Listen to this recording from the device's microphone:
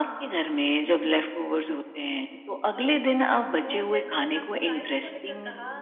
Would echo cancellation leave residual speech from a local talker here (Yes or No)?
Yes